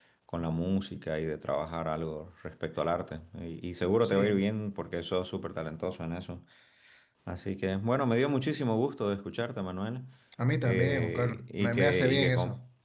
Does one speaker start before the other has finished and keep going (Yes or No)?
Yes